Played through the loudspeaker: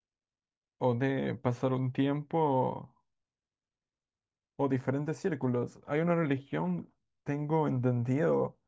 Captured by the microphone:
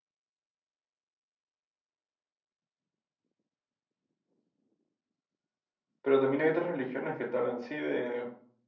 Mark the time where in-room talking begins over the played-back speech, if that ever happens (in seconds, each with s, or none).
6.0 s